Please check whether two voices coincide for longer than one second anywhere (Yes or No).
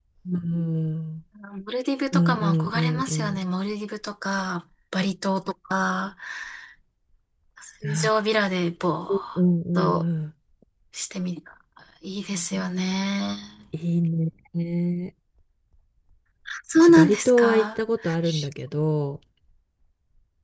Yes